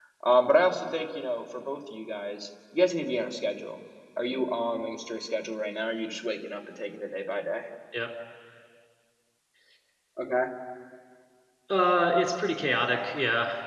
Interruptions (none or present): none